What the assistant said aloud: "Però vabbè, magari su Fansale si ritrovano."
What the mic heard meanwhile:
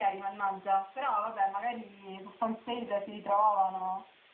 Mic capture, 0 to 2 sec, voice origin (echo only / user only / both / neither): echo only